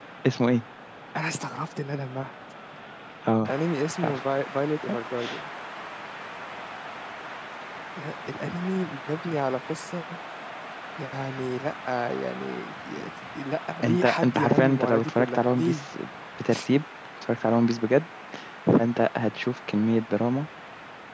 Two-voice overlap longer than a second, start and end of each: 13.8-15.8

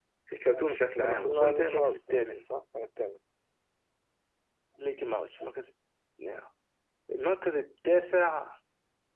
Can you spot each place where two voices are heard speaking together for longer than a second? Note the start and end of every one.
0.9-2.5

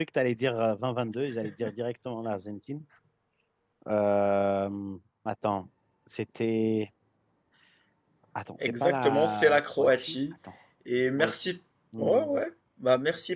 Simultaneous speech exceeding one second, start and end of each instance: 8.6-10.2

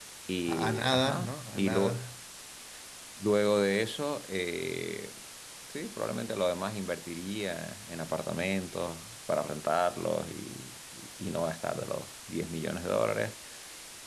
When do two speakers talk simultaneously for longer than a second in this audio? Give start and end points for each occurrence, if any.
0.5-2.0

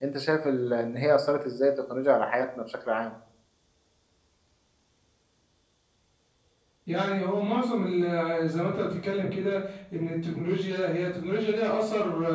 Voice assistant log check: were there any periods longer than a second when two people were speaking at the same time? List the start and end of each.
none

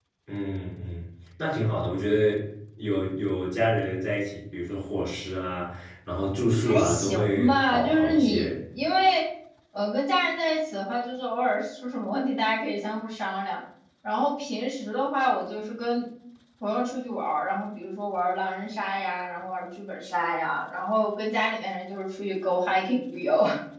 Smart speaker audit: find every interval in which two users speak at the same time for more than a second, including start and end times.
6.6-8.5

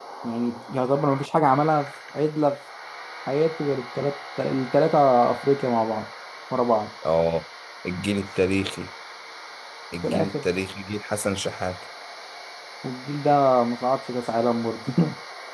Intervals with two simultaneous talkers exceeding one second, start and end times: none

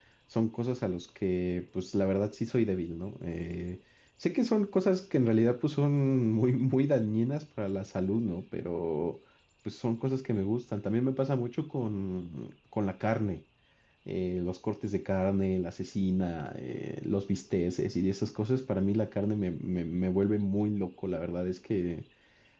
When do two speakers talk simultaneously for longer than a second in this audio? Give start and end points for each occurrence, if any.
none

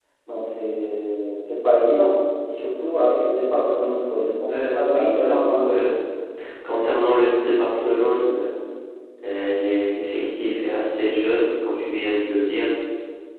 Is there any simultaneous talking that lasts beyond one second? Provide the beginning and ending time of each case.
4.5-5.9

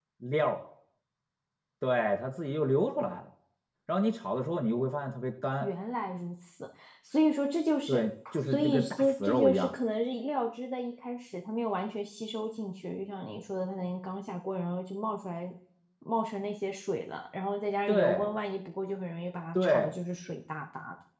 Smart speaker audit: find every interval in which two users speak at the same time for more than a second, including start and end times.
8.5-9.7

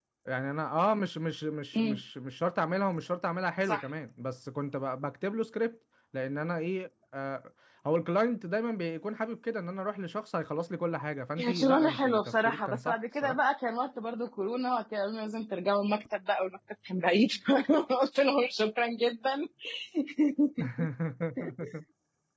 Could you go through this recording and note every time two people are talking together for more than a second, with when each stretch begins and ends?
11.4-13.4

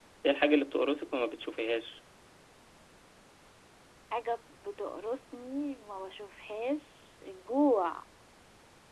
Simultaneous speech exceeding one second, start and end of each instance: none

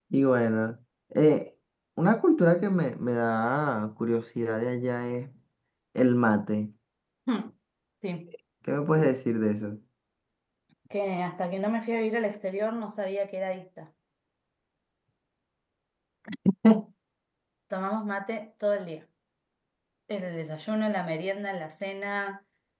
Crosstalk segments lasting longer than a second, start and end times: none

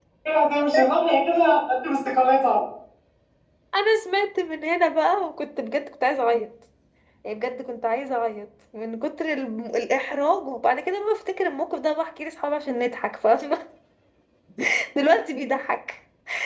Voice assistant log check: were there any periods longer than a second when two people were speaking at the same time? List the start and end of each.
none

